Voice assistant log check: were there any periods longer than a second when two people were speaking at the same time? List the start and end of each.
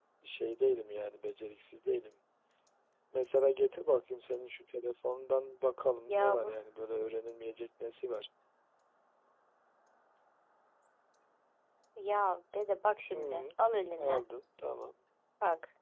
none

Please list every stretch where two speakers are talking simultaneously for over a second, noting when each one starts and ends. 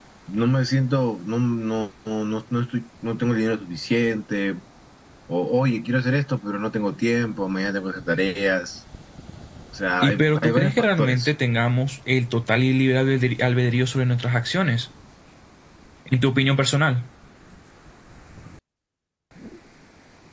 10.0-11.3

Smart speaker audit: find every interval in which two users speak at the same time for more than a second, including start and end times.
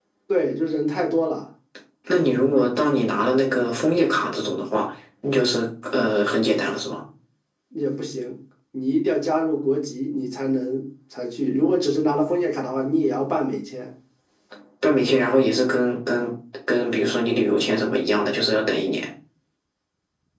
none

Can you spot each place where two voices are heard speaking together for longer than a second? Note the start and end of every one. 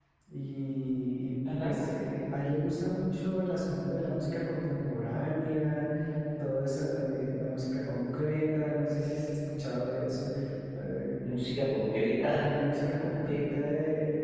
none

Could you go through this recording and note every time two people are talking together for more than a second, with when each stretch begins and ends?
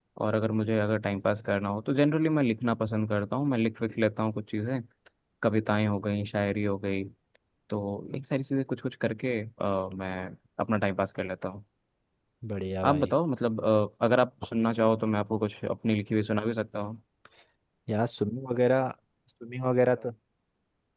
none

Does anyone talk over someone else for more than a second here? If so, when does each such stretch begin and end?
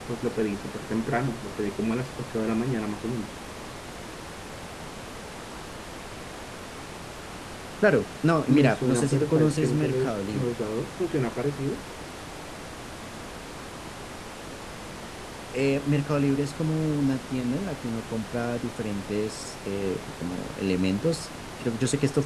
8.5-10.5

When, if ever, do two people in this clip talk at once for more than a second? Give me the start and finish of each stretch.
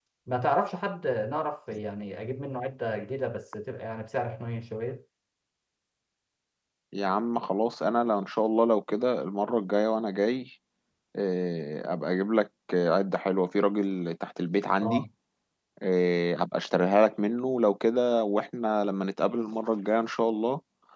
none

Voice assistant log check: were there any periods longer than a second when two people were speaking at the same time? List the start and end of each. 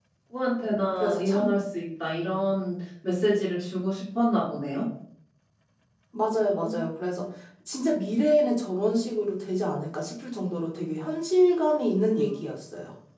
none

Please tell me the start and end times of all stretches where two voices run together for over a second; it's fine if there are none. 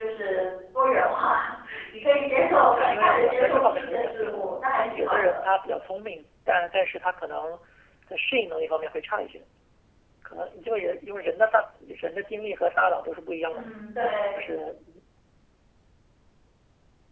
2.7-5.4

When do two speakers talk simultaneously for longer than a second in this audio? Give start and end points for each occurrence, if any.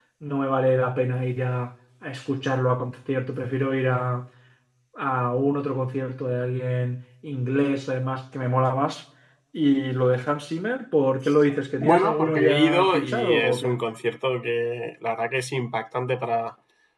11.8-13.8

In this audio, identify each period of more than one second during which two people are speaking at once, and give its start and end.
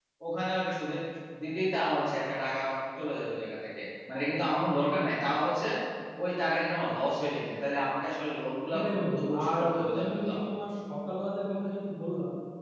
8.7-10.4

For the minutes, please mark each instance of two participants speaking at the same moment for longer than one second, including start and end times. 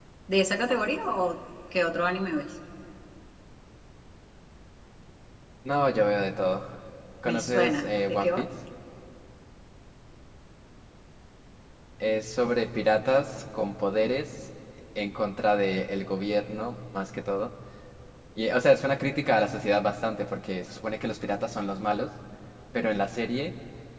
7.2-8.5

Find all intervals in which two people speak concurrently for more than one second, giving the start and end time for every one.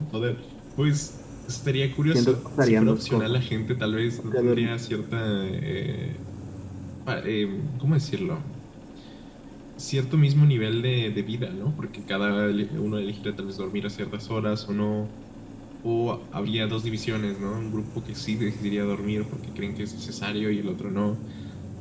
2.1-3.4

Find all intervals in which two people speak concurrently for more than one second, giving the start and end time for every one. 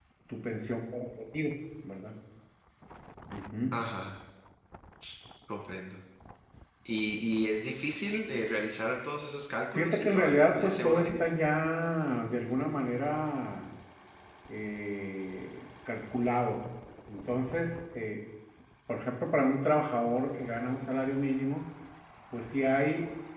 9.7-11.2

